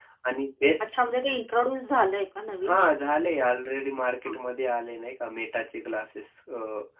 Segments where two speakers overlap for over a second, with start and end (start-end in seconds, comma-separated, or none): none